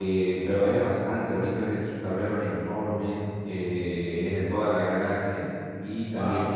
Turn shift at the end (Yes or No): No